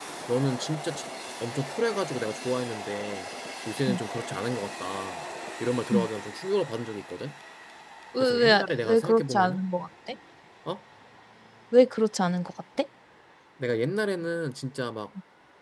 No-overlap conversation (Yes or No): No